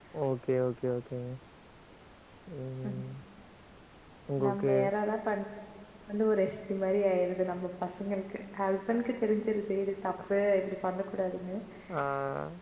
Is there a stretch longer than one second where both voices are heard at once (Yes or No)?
No